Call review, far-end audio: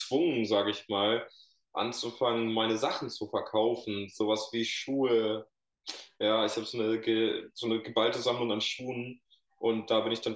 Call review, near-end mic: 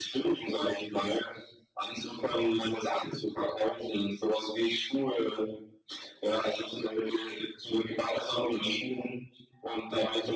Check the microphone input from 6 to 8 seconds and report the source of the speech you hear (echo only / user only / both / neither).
echo only